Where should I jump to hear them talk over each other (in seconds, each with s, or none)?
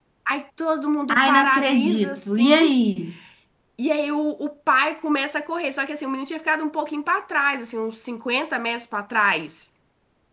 1.1 s